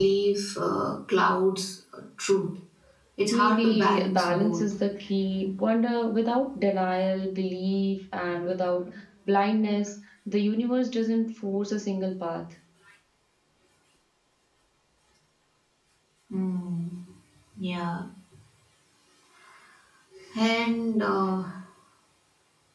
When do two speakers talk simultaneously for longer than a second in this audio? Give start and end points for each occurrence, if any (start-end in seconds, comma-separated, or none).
3.3-4.6